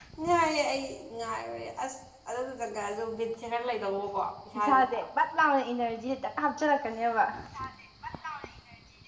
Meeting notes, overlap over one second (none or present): none